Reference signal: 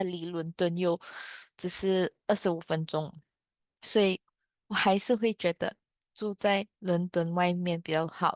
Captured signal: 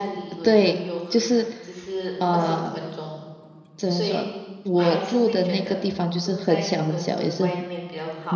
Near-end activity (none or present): present